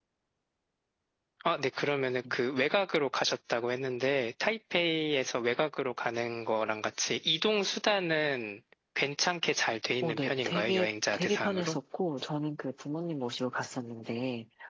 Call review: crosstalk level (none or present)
present